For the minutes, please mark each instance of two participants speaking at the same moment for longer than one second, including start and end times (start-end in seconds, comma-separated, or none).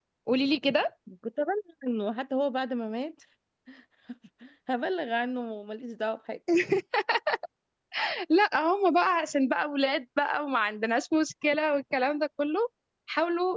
none